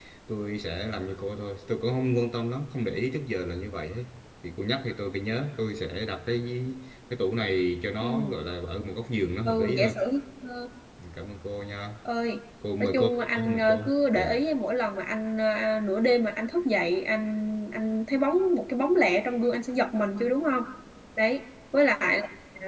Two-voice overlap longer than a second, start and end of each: 12.8-14.4

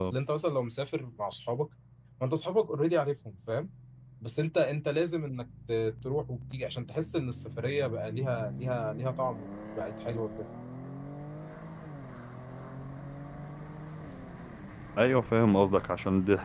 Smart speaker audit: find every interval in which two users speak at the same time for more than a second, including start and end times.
none

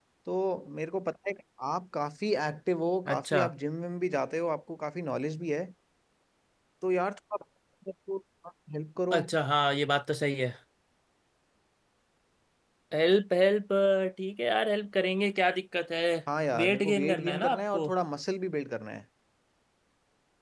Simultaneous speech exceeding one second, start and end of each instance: 16.6-17.9

